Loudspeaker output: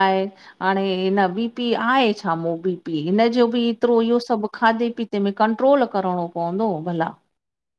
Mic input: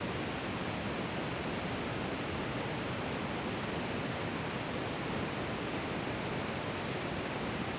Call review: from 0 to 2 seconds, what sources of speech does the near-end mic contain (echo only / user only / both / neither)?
neither